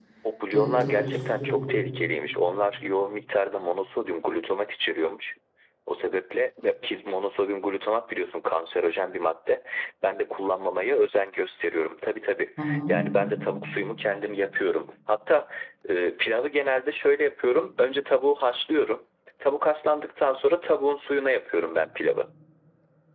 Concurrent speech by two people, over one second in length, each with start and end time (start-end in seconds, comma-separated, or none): 0.5-1.8